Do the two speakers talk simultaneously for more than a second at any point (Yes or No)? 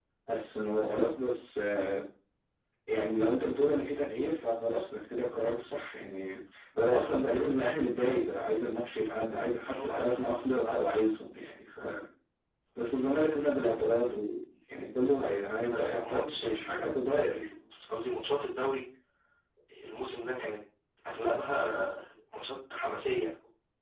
Yes